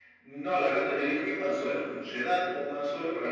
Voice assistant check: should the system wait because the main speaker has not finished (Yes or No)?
Yes